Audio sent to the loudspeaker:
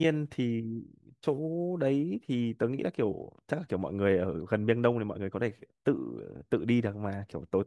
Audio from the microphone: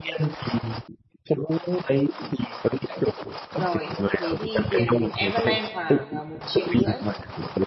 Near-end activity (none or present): present